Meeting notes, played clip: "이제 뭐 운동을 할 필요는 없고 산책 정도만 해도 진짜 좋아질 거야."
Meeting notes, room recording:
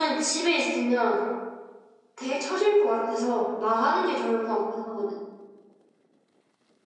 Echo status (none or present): none